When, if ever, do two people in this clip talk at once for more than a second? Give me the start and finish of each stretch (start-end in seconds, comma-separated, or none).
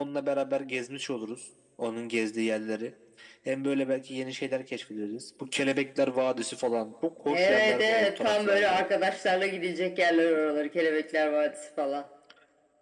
7.3-8.8